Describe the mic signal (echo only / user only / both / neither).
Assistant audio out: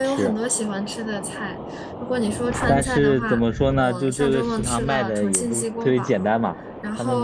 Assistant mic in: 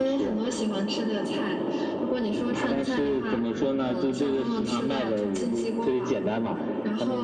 echo only